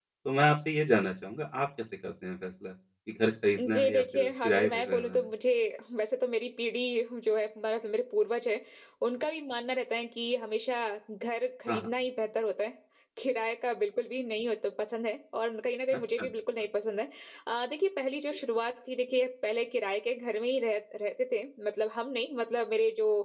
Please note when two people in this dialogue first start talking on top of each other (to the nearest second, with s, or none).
4 s